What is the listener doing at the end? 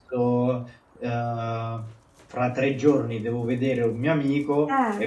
listening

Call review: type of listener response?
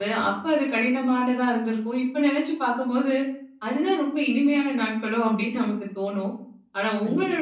listening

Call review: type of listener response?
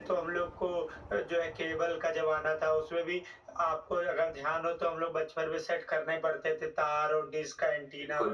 listening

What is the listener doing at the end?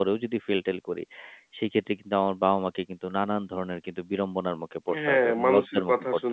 taking over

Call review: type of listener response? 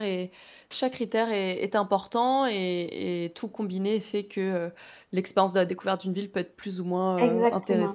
taking over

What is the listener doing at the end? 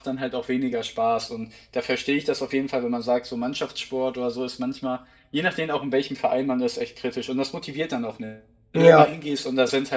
listening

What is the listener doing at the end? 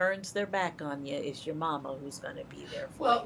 taking over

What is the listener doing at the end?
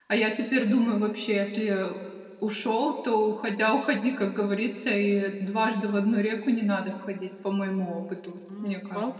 taking over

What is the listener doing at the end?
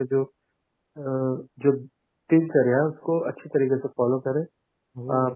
listening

